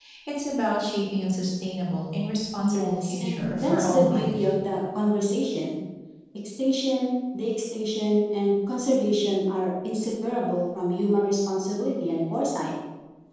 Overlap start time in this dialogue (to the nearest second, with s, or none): 3 s